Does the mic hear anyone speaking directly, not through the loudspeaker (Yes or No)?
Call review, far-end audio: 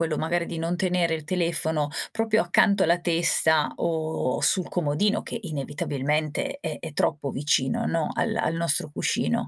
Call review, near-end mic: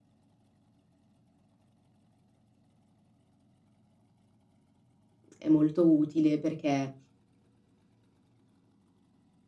Yes